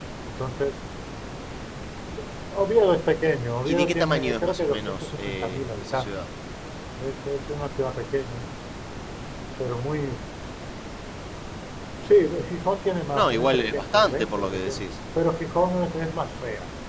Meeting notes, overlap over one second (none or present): present